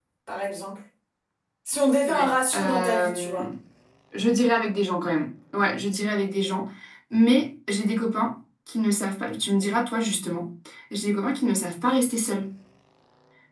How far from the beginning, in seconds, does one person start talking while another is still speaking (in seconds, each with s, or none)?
2.1 s